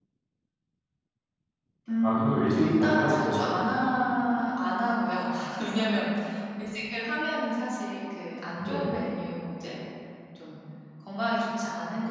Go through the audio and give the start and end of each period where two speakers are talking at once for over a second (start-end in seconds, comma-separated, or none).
2.0-3.4